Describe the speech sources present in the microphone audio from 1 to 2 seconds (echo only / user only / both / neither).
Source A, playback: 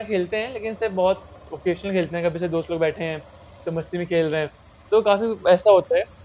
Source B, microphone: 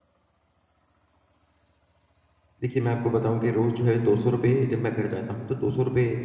neither